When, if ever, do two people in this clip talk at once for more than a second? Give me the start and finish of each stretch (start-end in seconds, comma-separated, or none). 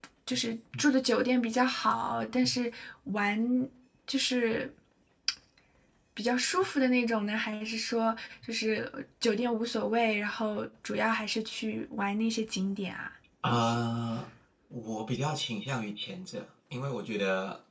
none